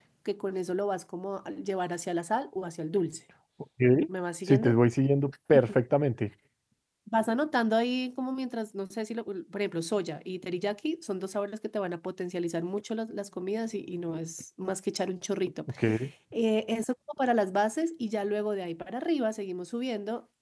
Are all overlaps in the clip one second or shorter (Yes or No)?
Yes